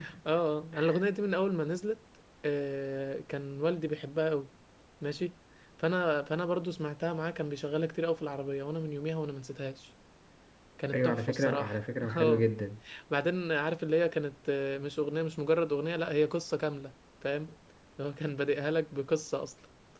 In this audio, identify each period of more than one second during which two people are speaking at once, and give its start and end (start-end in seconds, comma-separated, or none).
10.9-12.5